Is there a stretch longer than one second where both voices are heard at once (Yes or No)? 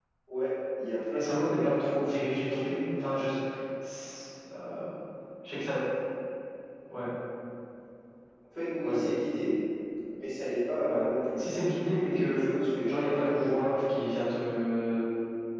Yes